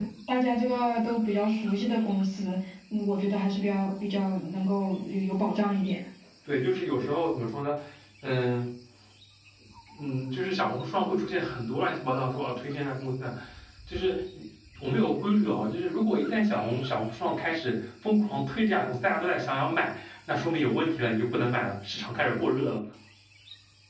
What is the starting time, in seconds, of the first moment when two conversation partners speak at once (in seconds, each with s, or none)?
none